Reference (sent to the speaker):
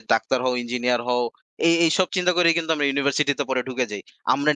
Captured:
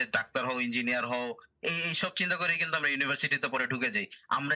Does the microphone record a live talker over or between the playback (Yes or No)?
No